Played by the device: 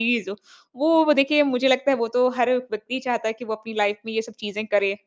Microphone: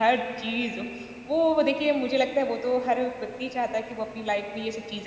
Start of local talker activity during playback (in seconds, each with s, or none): none